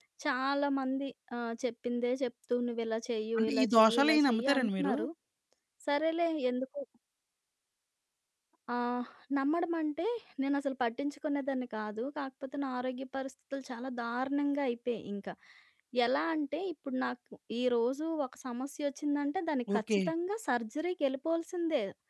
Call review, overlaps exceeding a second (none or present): present